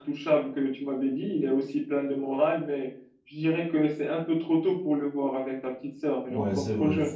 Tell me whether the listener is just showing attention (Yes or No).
No